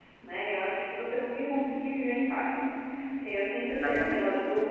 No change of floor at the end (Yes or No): Yes